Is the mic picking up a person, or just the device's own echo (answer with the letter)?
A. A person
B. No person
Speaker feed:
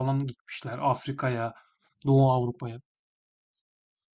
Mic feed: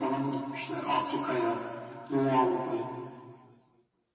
B